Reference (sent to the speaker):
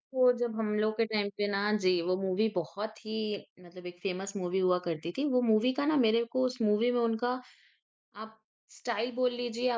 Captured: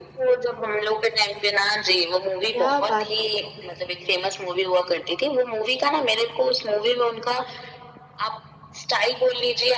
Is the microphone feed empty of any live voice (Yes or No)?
No